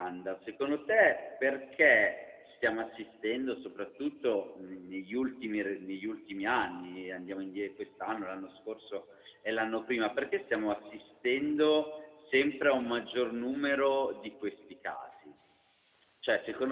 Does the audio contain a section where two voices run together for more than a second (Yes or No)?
No